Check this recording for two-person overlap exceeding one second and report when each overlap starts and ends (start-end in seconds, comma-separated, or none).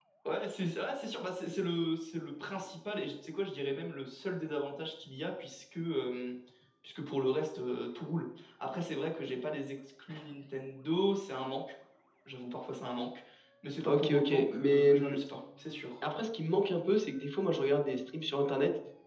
13.8-15.2